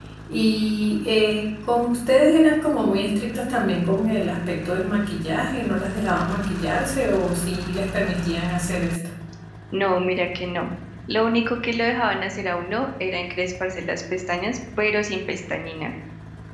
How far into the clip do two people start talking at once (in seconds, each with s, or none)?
none